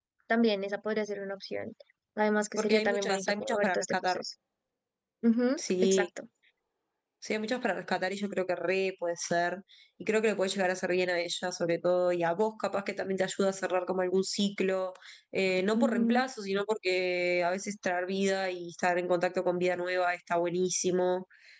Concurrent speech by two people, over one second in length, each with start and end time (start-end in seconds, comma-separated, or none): 2.6-4.2